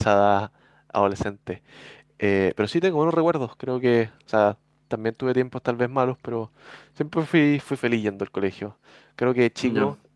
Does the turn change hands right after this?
No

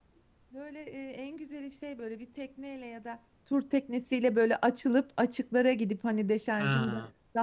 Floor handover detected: No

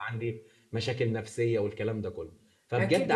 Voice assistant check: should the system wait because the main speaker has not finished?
No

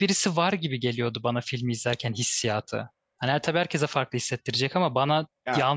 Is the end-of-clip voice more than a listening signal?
No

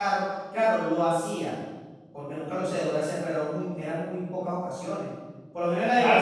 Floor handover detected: Yes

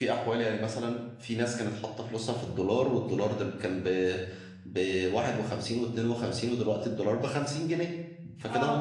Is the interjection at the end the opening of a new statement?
No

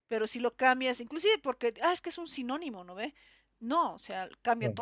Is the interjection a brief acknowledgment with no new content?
Yes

